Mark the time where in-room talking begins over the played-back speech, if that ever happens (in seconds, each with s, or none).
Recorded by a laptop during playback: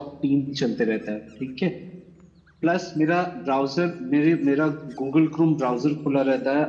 none